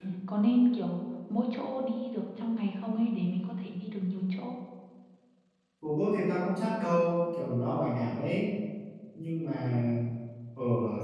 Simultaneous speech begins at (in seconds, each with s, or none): none